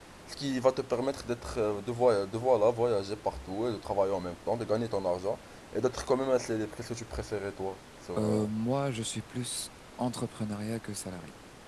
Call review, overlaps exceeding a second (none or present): none